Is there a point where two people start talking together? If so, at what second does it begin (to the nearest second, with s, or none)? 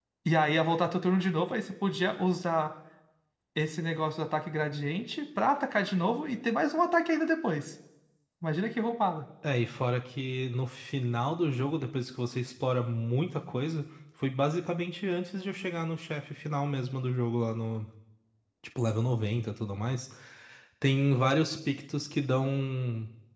none